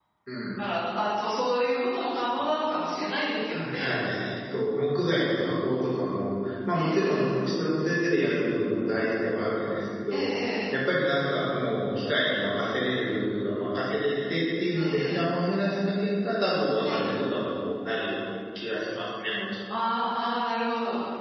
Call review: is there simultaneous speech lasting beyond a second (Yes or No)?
No